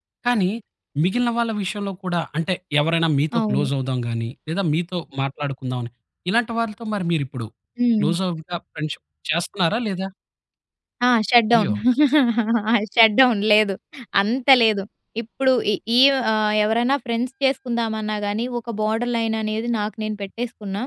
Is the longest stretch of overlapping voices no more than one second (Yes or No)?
Yes